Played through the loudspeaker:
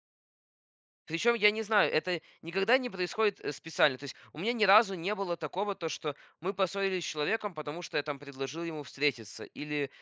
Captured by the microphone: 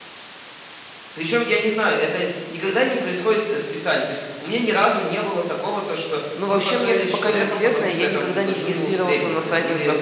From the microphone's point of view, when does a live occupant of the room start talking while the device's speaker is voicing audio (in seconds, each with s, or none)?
6.3 s